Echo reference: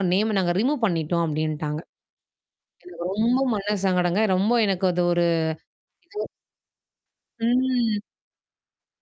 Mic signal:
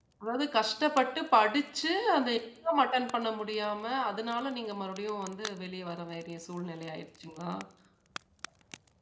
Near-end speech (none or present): present